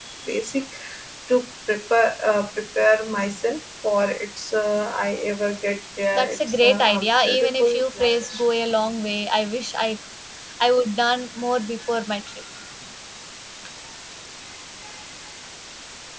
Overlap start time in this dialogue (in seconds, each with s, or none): 6.2 s